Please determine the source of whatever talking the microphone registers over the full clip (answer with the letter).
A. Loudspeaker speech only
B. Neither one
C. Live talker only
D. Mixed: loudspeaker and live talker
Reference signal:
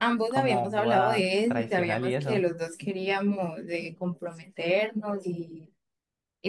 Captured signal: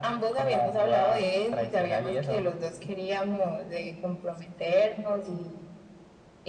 A